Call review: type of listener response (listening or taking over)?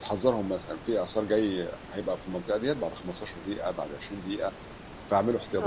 taking over